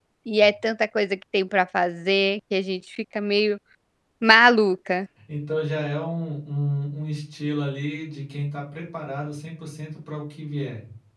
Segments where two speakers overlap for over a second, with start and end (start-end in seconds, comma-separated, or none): none